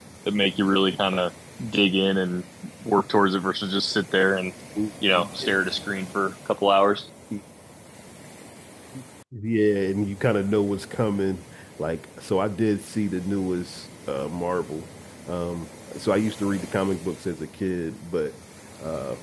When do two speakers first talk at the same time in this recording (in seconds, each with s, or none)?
none